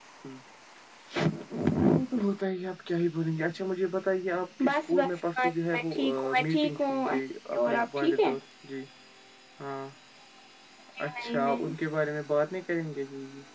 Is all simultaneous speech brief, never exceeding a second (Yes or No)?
No